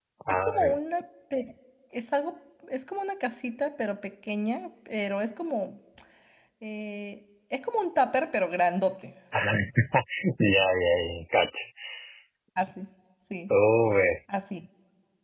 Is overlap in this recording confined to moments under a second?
Yes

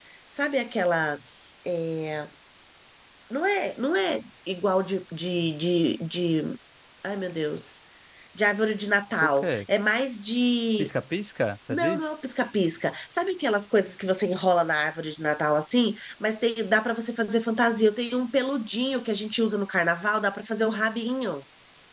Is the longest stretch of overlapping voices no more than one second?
Yes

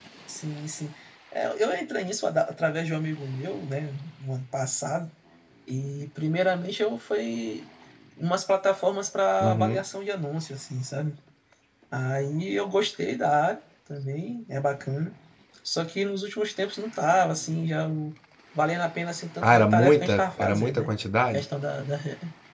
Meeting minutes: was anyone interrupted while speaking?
Yes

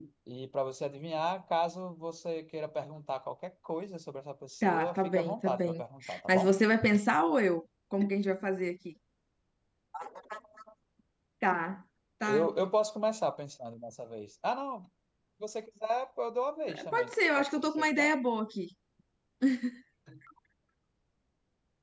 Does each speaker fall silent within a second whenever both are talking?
No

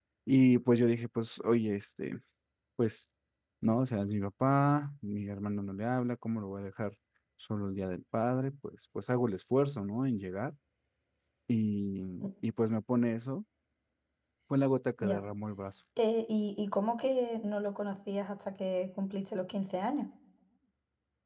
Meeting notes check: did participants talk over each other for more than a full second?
No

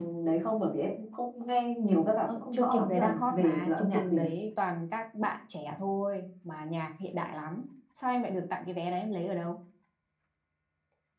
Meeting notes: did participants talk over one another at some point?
Yes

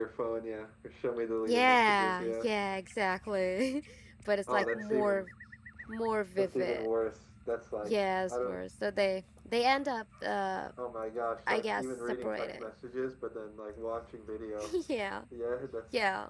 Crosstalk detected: Yes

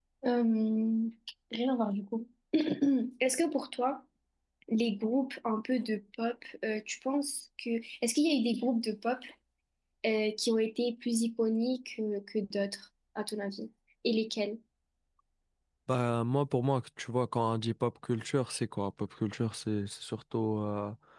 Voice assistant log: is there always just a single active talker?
Yes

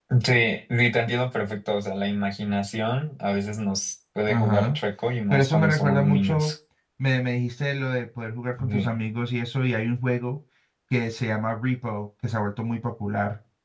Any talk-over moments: Yes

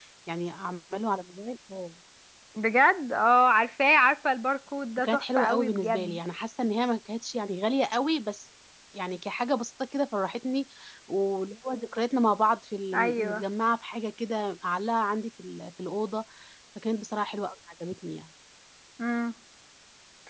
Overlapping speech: Yes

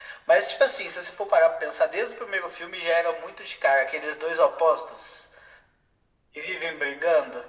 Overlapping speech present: No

